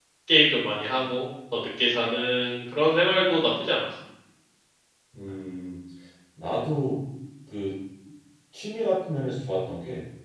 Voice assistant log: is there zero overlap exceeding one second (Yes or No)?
Yes